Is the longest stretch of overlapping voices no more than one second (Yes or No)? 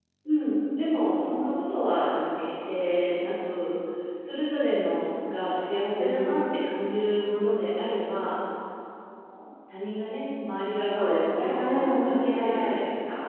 No